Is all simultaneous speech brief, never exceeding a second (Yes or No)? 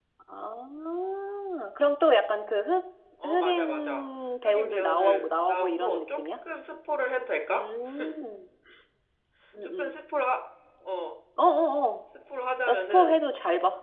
No